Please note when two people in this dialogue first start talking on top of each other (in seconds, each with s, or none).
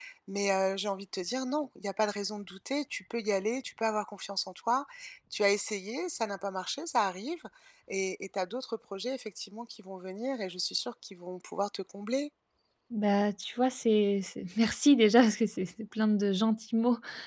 none